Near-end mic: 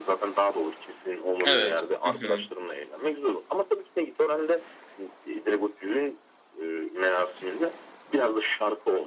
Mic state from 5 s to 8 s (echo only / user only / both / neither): echo only